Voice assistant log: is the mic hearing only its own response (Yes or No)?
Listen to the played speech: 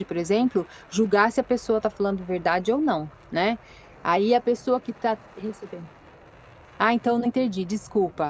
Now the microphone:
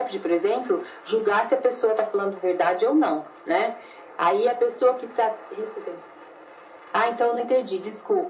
Yes